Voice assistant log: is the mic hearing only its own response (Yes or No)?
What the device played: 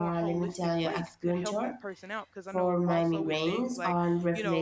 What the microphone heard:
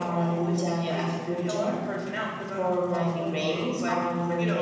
Yes